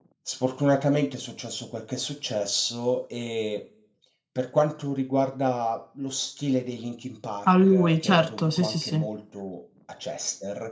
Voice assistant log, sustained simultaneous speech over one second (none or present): present